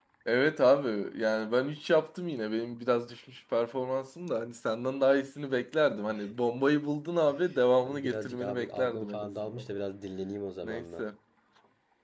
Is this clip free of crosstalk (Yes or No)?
No